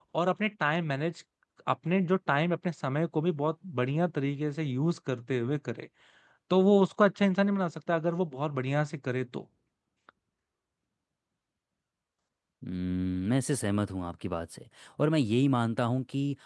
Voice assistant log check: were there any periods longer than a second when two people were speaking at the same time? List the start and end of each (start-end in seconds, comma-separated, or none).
none